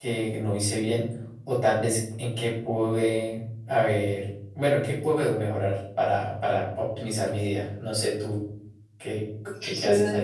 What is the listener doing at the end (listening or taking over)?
taking over